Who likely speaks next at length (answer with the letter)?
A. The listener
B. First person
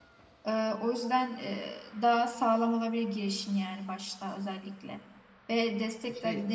B